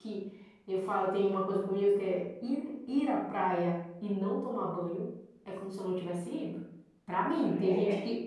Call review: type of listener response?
listening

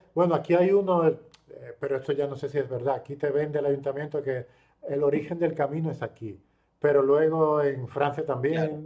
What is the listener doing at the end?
listening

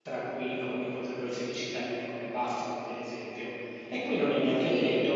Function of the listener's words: listening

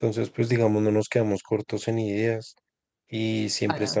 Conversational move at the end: listening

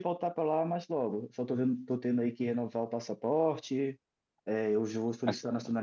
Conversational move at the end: listening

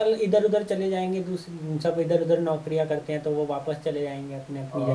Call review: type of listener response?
taking over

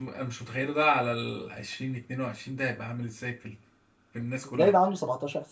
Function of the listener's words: taking over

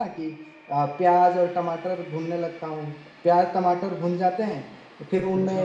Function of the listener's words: listening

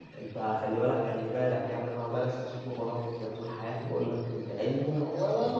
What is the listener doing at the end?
taking over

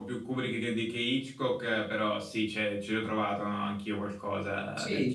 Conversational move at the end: taking over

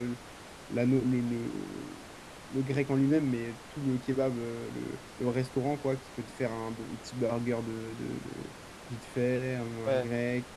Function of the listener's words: taking over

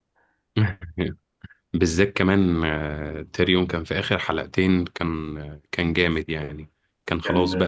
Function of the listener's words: listening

